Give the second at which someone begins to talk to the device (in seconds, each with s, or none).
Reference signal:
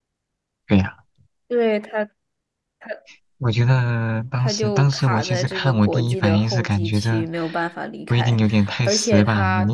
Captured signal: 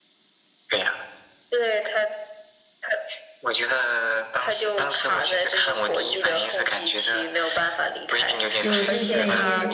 8.5 s